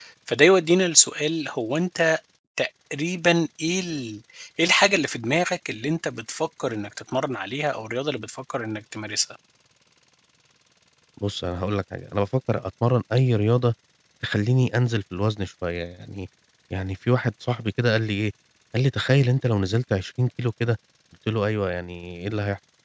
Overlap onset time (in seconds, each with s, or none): none